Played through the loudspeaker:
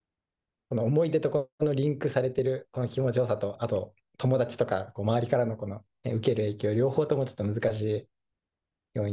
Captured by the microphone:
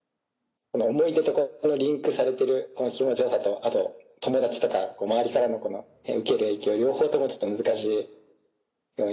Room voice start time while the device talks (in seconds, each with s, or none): none